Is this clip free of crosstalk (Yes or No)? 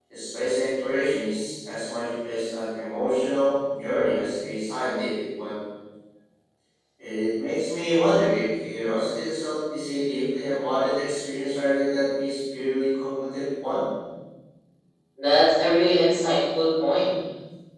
Yes